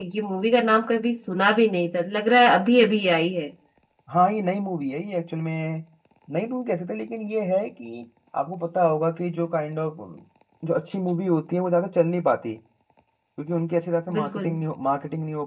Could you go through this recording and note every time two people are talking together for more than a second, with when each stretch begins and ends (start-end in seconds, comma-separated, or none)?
none